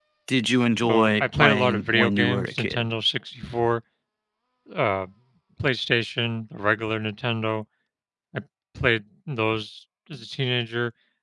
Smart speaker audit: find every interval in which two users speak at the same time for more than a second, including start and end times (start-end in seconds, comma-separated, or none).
0.8-2.9